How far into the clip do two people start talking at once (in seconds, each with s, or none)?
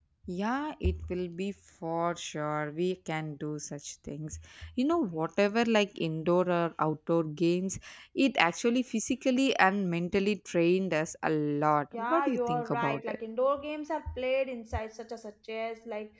11.9 s